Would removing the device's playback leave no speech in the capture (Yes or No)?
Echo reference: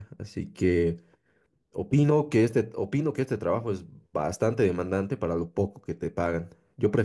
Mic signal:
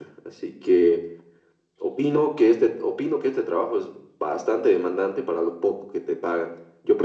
Yes